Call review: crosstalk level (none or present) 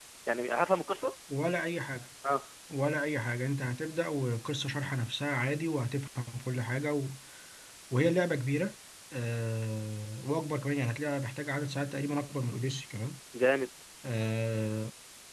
none